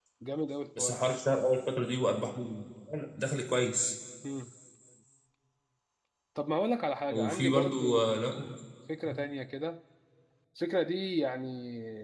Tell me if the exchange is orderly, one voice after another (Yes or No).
No